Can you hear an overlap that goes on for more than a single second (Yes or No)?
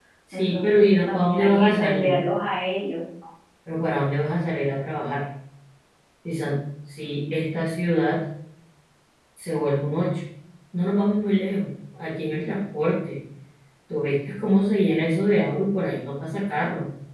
Yes